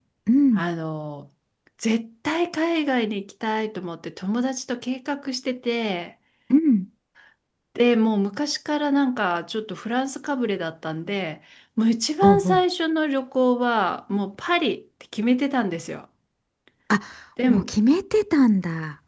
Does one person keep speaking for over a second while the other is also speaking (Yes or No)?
No